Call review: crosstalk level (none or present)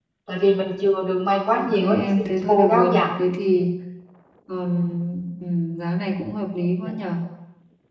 present